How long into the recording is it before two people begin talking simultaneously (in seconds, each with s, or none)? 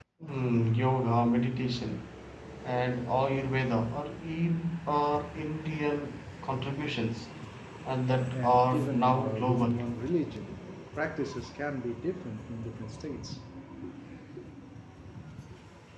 8.3 s